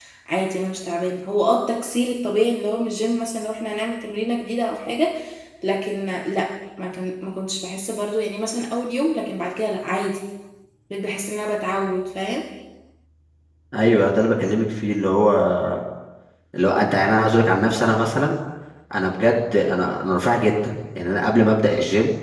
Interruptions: none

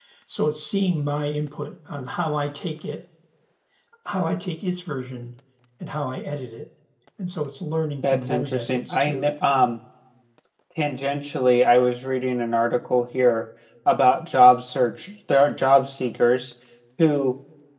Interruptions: present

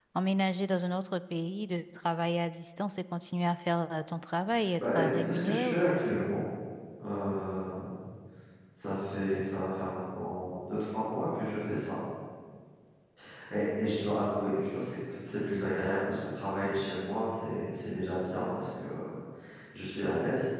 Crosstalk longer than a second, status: present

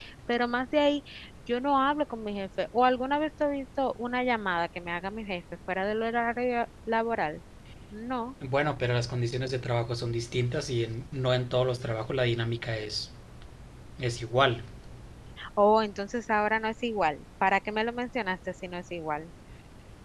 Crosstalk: none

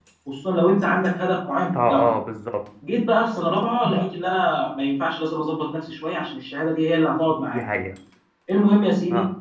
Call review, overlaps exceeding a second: none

